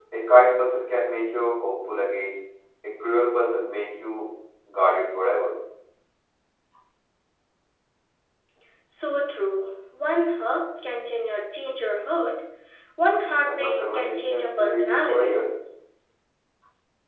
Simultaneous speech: Yes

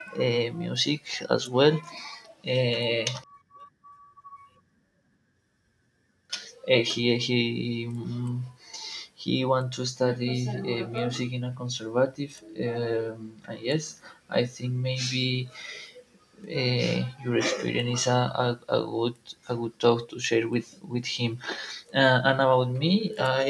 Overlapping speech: No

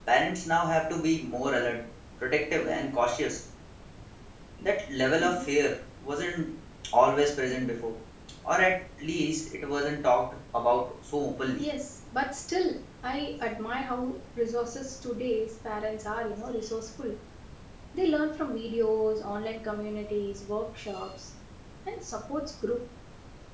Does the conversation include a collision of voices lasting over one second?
No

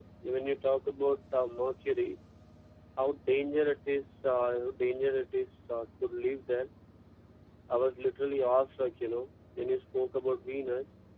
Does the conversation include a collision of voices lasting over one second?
No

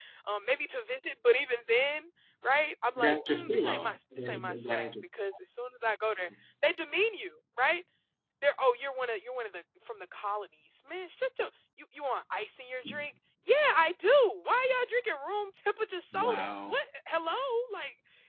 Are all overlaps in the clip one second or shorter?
No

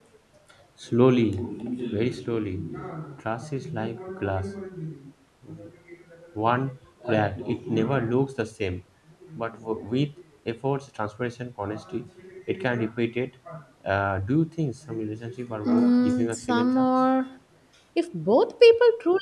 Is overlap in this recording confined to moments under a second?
No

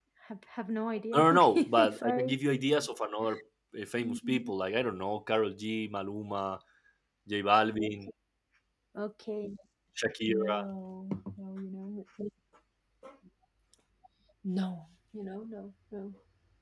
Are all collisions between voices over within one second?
No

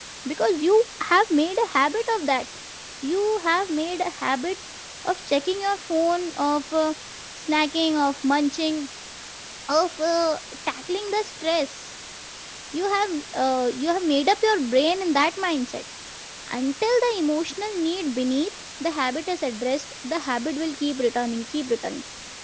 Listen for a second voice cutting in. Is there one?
No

